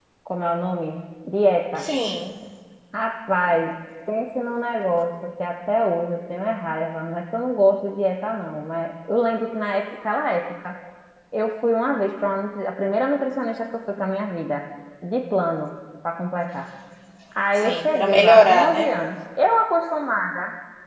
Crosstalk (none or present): present